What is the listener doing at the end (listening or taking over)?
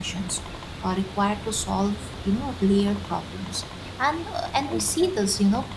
listening